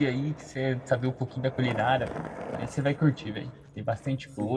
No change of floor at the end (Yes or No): No